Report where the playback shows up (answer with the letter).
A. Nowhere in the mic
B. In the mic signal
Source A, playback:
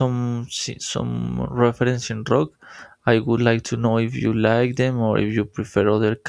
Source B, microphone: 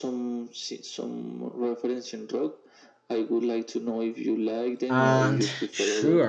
B